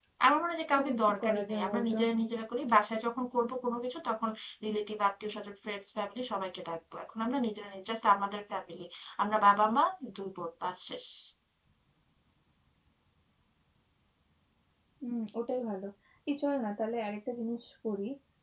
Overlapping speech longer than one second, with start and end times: 0.7-1.9

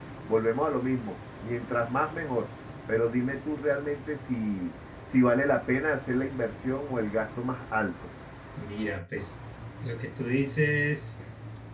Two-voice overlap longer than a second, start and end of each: none

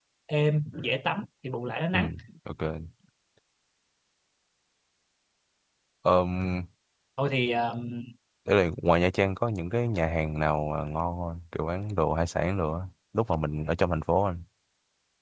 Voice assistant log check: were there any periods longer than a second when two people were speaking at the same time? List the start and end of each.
none

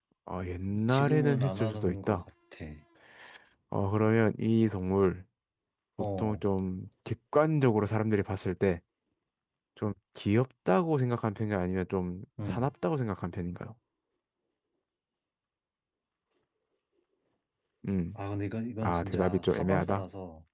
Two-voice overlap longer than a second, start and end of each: 0.9-2.2, 18.8-20.0

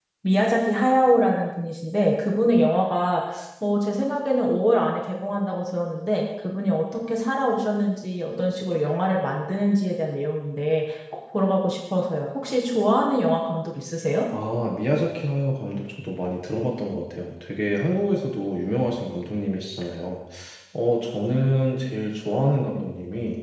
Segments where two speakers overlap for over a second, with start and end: none

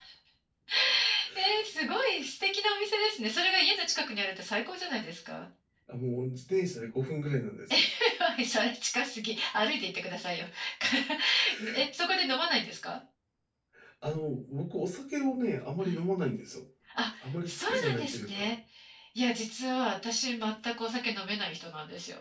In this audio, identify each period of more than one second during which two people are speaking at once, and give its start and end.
17.2-18.5

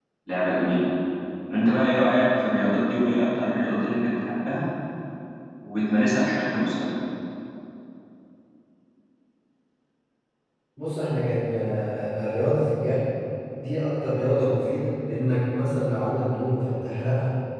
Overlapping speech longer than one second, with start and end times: none

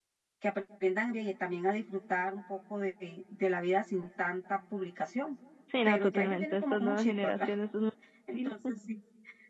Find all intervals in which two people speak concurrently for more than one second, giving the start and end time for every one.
5.8-7.5

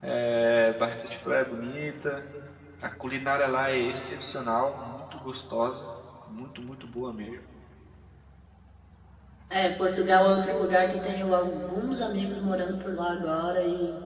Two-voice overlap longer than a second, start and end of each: none

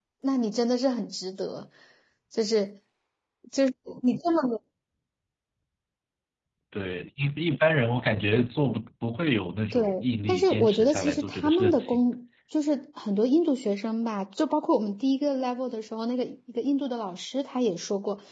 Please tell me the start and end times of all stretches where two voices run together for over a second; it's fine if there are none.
10.3-12.0

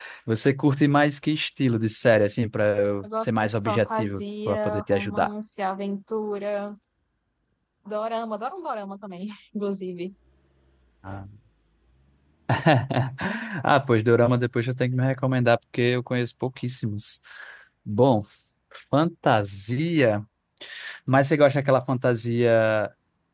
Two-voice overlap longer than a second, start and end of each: 3.0-5.3

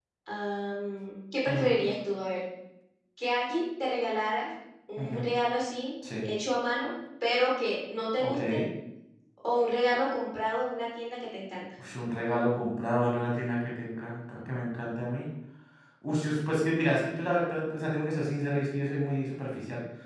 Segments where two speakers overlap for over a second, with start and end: none

